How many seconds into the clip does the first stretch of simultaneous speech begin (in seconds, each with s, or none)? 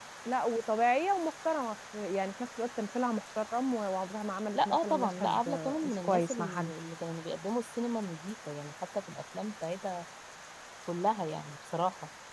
4.5 s